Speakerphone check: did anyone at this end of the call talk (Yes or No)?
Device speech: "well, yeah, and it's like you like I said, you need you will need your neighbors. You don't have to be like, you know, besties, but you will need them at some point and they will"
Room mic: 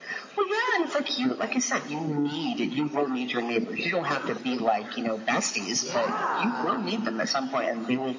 Yes